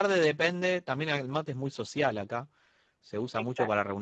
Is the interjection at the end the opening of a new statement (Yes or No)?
No